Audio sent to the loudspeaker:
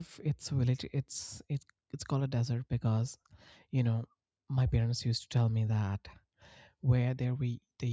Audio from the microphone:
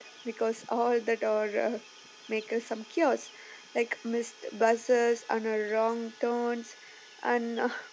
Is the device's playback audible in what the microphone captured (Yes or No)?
No